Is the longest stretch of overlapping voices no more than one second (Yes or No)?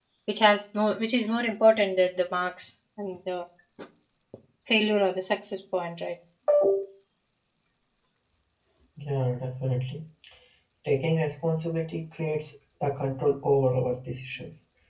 Yes